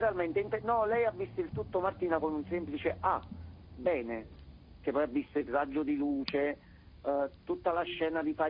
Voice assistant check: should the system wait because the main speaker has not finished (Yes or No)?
Yes